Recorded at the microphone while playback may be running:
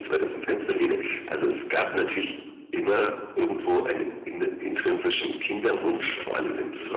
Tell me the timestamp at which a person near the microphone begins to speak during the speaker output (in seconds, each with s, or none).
5.5 s